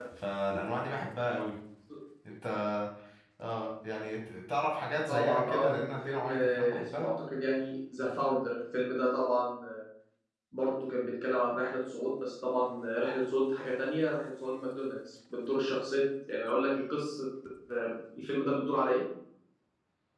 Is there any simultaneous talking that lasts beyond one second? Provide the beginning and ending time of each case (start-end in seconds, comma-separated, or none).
5.1-7.1